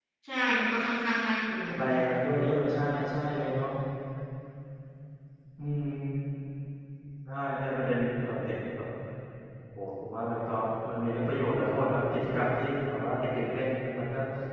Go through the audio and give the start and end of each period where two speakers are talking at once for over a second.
none

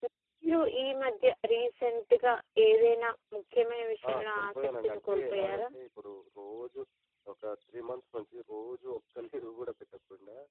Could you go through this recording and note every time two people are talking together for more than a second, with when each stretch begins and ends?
4.1-5.7

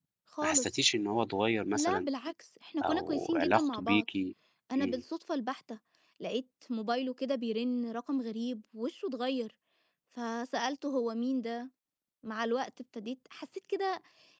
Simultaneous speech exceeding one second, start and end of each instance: 2.8-4.0

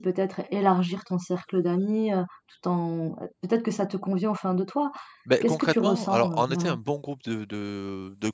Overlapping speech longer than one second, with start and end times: 5.4-6.8

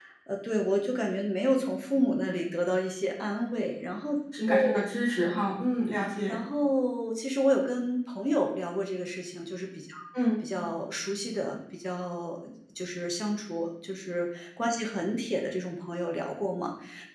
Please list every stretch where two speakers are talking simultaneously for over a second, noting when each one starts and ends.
none

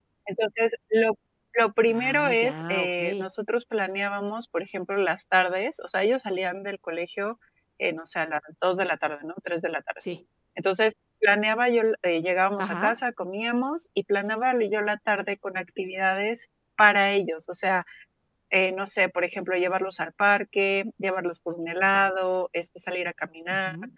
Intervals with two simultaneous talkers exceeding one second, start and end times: 1.9-3.2

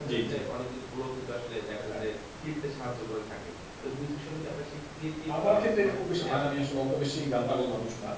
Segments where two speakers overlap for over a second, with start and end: 5.3-6.6

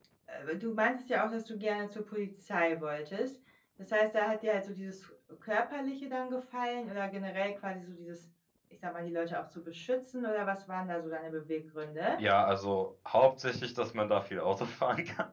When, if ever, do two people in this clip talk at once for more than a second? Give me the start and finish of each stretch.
none

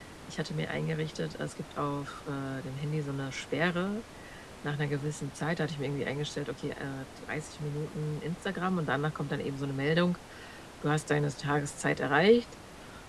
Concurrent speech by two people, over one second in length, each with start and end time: none

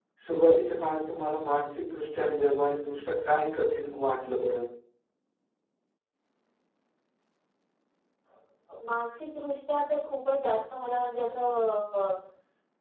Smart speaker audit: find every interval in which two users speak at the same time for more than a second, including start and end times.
none

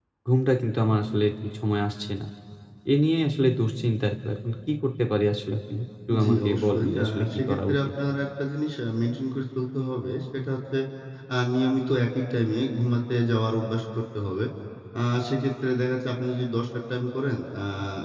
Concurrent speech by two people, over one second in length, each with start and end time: 6.2-7.8

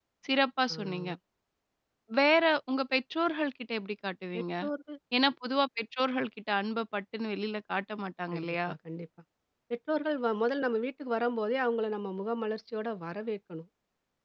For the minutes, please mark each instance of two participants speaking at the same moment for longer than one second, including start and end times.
none

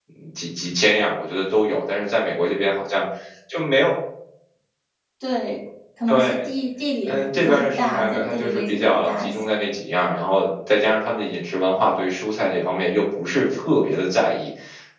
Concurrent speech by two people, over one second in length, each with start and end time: 7.0-9.4

